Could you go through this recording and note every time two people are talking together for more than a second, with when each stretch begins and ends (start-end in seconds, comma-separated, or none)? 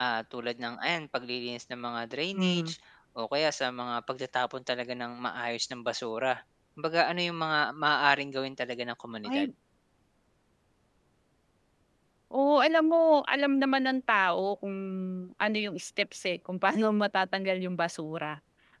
none